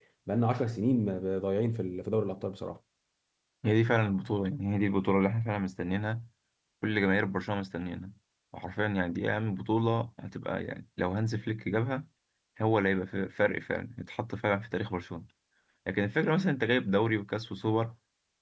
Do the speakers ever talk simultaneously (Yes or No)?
No